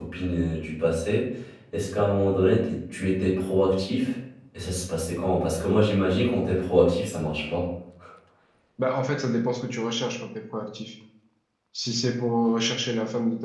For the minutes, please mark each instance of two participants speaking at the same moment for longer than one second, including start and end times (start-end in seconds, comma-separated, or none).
none